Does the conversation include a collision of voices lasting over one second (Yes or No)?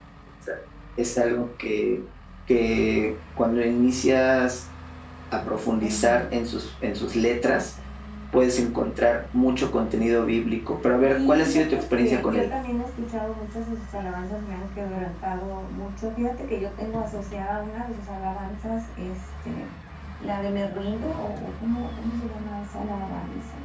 Yes